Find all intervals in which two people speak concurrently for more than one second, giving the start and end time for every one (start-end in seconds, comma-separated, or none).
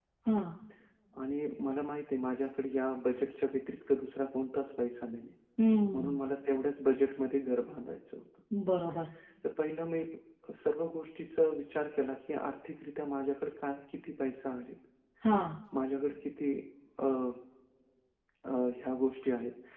none